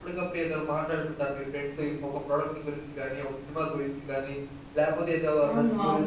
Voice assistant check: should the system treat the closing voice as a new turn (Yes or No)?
No